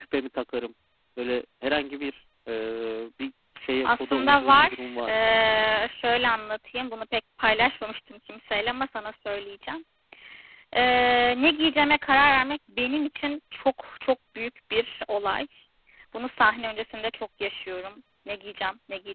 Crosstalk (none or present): present